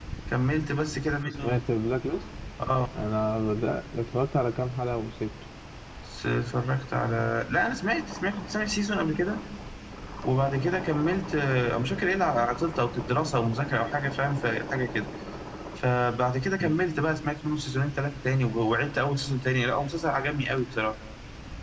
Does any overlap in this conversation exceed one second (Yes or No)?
No